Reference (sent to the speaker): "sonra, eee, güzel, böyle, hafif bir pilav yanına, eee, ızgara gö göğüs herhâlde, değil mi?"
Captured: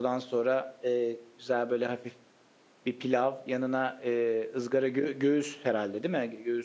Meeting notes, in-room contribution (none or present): none